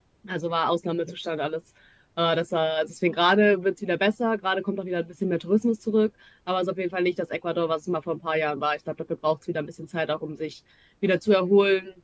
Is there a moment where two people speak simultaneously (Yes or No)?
No